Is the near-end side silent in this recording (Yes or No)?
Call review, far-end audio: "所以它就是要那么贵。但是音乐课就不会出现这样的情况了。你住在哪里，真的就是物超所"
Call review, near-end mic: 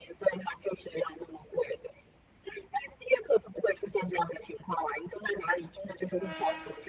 Yes